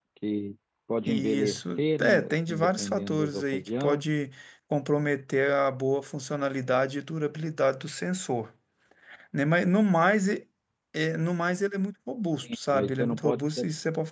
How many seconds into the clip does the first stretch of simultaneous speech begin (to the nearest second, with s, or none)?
1 s